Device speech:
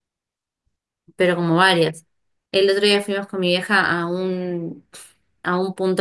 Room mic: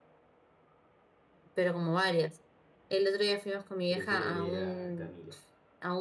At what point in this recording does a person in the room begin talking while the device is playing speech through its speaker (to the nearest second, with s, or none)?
4 s